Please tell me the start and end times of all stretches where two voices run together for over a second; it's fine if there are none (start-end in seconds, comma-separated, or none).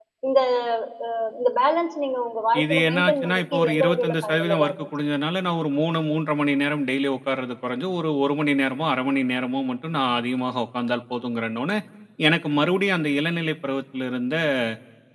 2.6-4.9